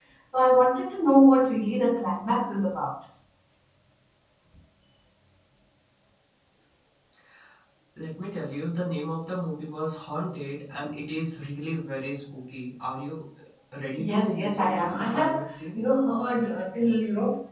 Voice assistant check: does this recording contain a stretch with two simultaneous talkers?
Yes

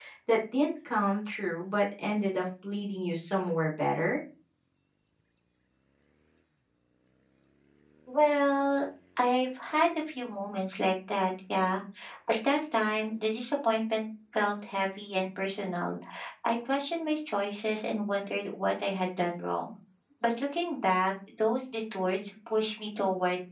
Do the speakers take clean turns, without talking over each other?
Yes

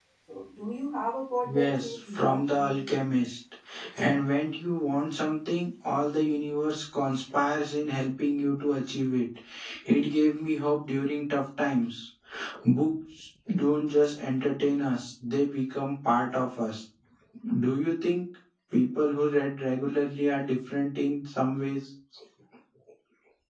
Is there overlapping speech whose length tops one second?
Yes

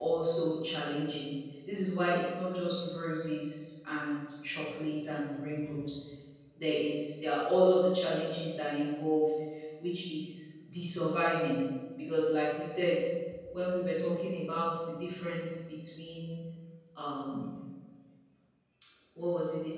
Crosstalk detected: No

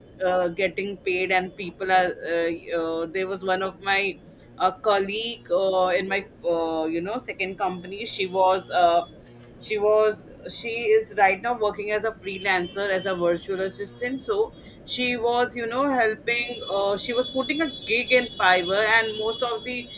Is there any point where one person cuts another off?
No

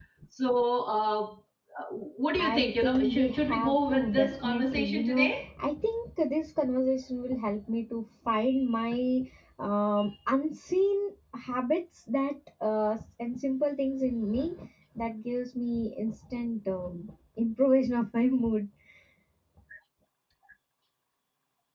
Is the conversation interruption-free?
No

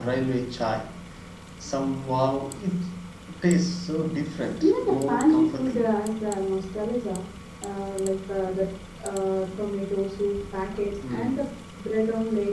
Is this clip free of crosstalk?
No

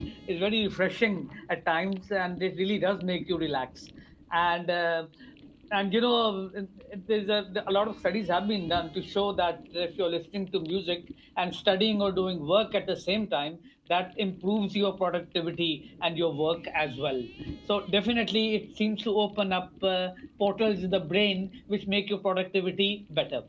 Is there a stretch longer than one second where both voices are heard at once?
No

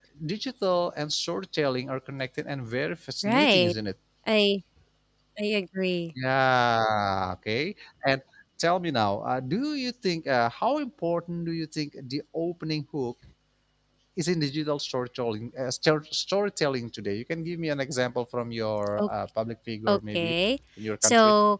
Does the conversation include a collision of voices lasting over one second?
No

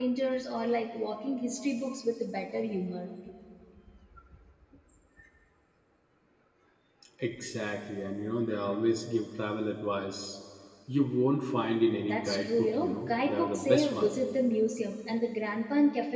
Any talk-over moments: Yes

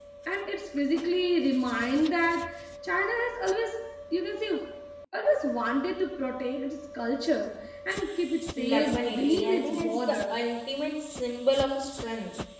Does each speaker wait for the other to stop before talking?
No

